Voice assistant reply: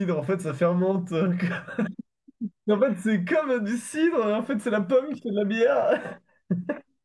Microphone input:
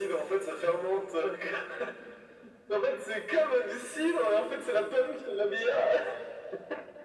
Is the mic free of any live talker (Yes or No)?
Yes